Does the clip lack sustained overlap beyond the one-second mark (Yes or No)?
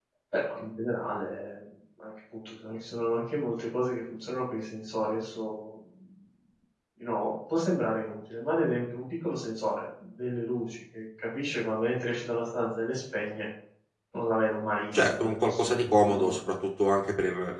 No